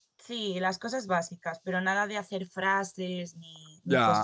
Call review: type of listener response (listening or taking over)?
taking over